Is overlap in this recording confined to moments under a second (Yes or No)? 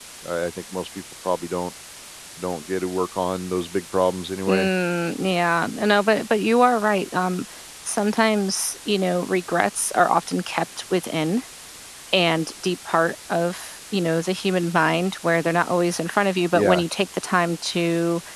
Yes